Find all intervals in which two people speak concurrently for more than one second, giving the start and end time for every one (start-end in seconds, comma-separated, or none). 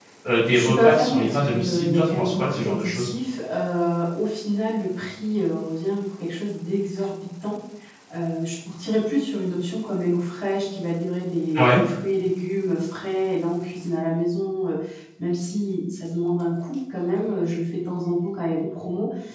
0.5-3.1